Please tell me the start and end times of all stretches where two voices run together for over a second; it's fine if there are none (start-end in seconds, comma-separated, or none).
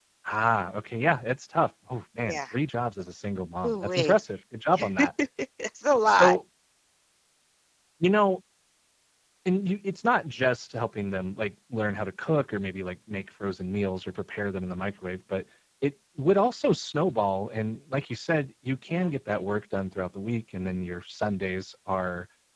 none